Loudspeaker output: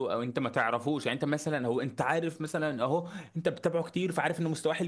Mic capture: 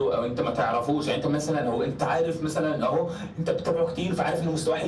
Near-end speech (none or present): none